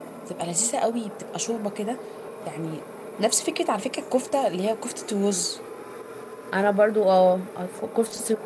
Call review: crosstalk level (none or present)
none